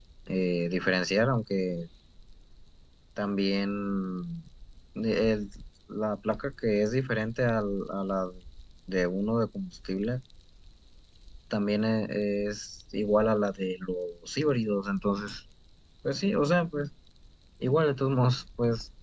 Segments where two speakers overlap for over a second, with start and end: none

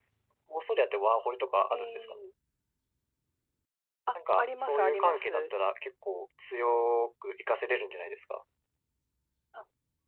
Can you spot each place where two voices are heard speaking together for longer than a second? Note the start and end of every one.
4.1-5.5

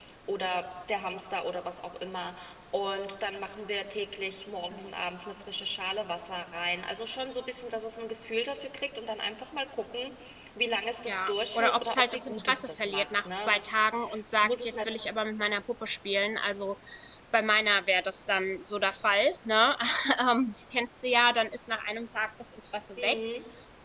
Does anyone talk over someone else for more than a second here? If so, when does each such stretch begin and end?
11.1-13.8

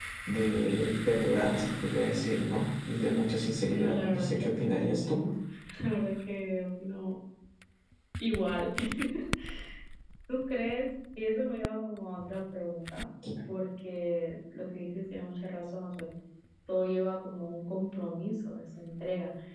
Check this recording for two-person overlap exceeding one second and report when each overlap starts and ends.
3.7-5.2

